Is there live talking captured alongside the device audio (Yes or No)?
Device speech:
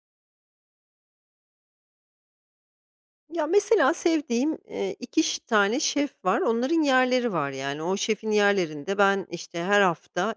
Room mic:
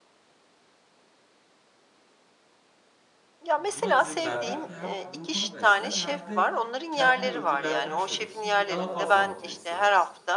Yes